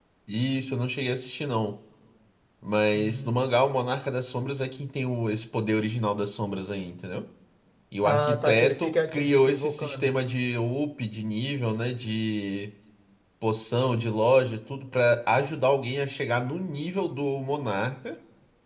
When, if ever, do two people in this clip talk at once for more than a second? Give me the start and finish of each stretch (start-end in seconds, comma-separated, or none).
8.0-10.1